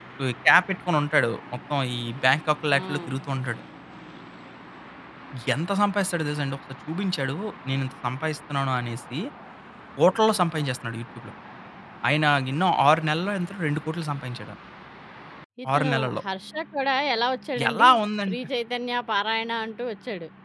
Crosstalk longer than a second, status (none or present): none